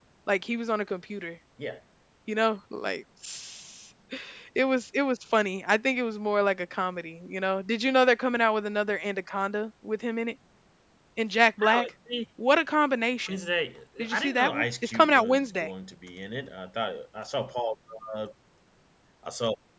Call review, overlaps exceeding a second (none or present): present